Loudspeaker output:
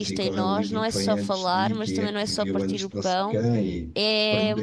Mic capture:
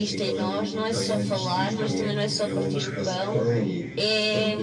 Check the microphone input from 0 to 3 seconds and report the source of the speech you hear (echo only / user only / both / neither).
both